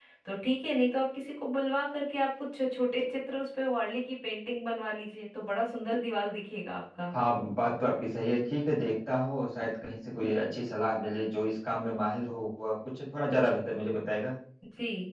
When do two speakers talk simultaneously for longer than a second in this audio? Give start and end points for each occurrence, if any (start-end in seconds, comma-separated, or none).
none